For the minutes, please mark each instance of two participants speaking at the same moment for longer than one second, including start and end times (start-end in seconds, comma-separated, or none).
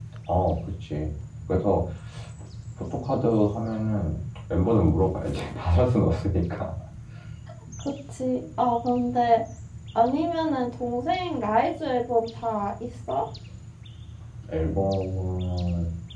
none